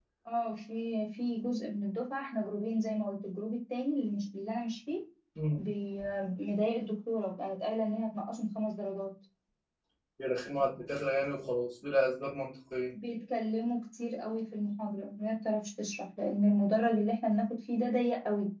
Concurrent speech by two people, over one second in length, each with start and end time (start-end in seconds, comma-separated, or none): none